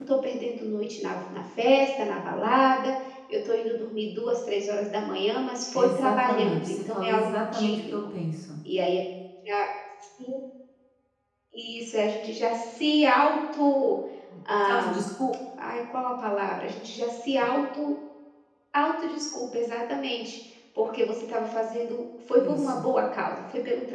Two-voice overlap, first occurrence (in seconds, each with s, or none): 5.7 s